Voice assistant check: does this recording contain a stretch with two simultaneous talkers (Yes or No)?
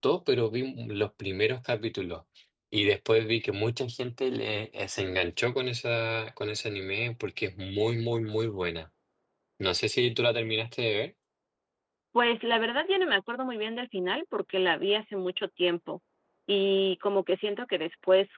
No